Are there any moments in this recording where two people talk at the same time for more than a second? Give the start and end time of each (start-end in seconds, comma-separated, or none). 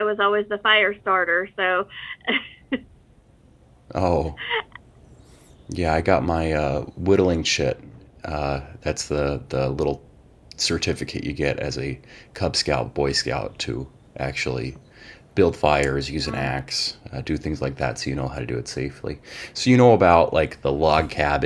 none